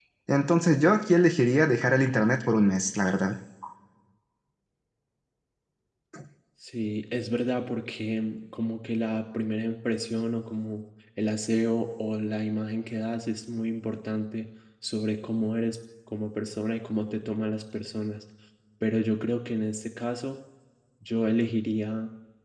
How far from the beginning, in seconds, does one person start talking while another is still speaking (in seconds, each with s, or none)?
none